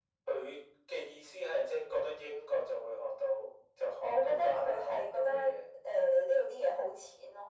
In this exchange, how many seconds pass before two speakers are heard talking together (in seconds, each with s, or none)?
4.0 s